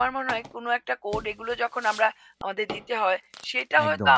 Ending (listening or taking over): listening